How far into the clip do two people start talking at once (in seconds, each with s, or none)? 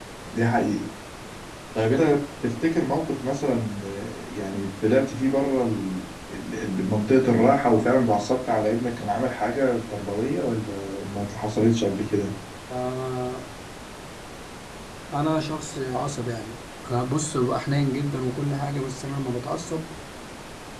none